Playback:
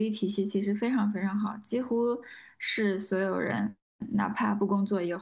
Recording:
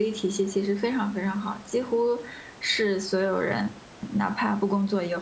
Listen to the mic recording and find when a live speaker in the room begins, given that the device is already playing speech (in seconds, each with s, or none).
none